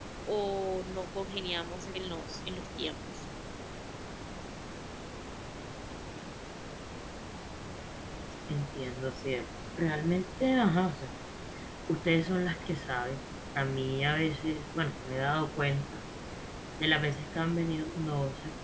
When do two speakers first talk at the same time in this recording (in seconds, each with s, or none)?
none